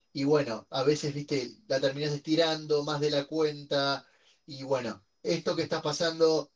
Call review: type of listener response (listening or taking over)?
listening